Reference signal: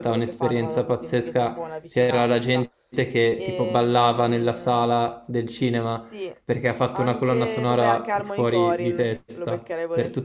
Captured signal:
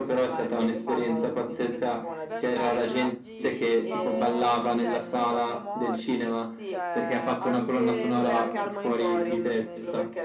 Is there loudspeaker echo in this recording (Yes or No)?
Yes